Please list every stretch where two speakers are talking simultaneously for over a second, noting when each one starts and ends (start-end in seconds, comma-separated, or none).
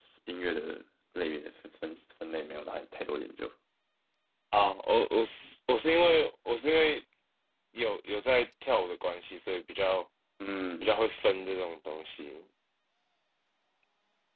none